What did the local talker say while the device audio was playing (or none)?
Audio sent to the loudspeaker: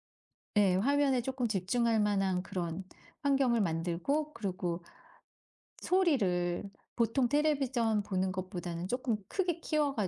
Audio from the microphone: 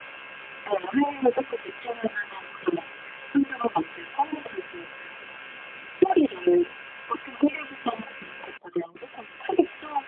none